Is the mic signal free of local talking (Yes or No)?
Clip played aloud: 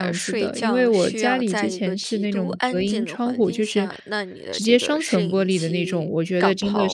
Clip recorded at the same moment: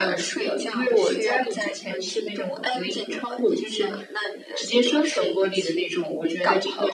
Yes